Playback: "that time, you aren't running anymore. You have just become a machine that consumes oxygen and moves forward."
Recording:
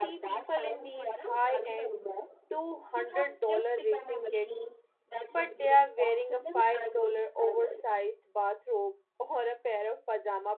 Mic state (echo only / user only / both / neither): both